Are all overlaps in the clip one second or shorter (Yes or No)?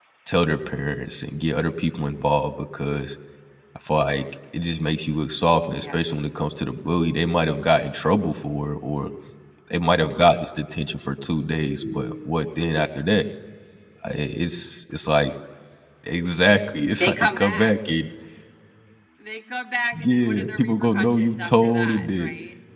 No